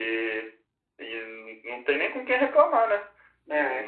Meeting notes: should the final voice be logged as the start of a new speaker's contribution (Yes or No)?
No